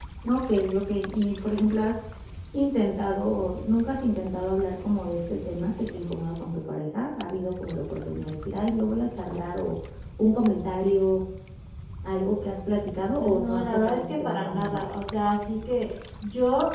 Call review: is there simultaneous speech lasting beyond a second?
Yes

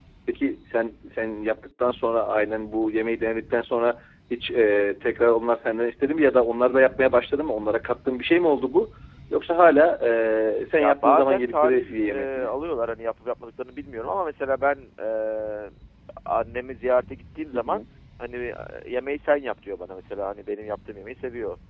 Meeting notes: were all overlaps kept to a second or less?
No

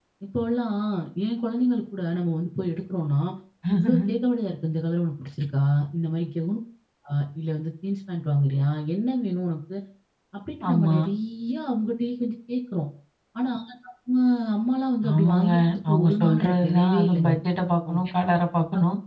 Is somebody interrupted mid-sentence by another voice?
Yes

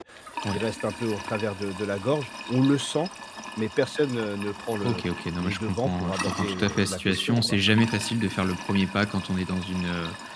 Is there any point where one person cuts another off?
Yes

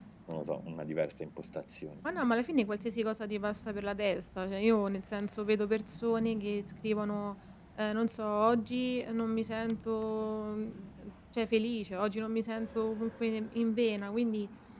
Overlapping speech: No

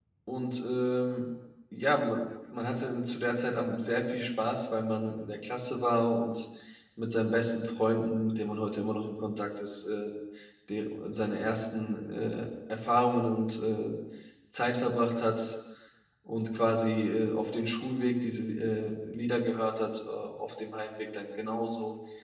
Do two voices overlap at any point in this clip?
No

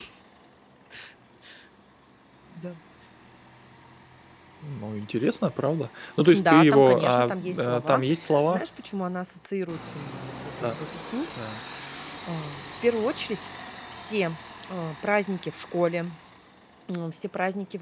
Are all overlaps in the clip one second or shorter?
No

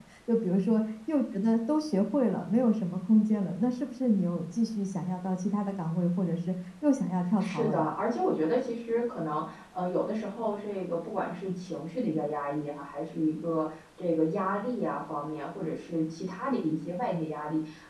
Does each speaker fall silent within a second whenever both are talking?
Yes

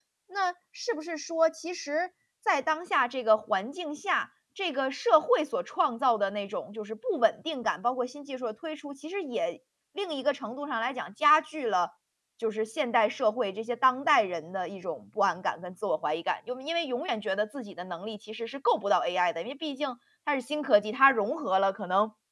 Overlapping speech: No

